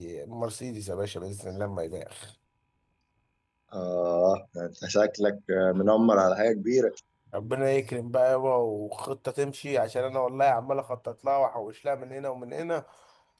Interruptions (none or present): none